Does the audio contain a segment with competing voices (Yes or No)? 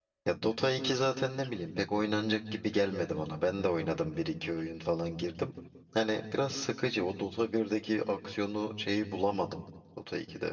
No